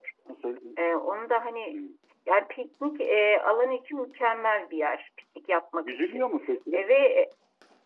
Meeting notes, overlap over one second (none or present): none